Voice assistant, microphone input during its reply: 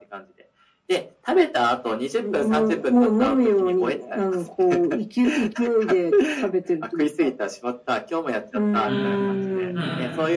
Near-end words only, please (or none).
うん。うん。